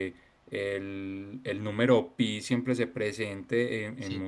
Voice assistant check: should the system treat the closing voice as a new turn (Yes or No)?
No